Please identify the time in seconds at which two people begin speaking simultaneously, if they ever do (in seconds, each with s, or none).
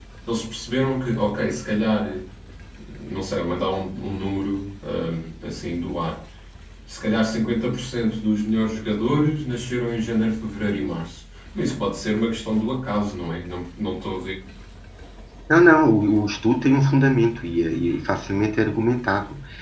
none